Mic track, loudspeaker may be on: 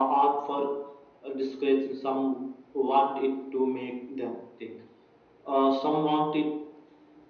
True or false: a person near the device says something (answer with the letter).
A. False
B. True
A